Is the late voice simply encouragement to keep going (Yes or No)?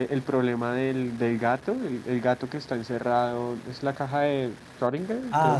No